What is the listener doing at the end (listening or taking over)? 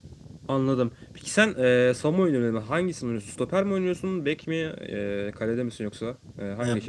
taking over